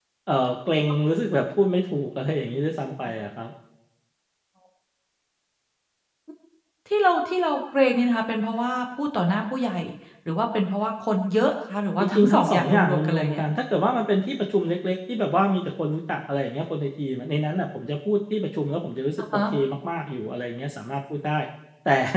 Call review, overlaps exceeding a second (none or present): present